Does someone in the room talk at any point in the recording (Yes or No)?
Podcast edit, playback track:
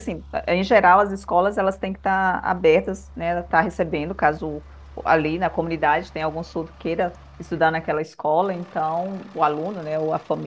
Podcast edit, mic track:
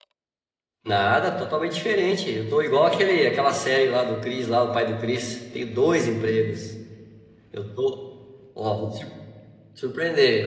Yes